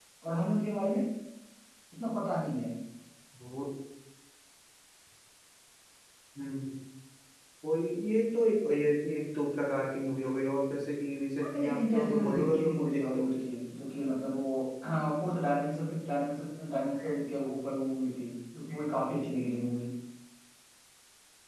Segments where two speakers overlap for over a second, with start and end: 11.4-13.2

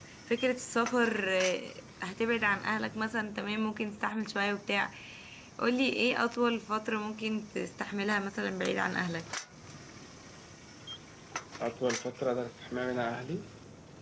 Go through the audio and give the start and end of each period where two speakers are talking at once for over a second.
none

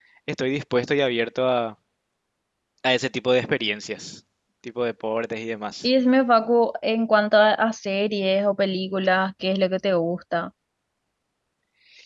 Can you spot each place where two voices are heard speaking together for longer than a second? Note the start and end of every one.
none

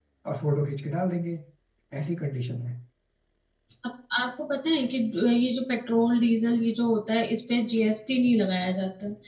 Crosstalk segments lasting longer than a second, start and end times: none

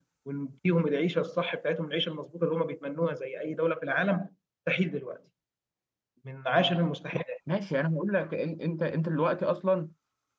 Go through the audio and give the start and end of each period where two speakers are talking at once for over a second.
none

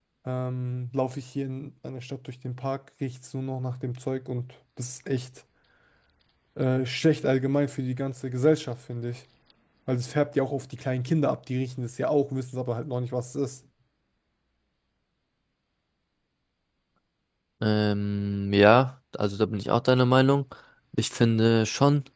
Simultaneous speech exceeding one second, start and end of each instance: none

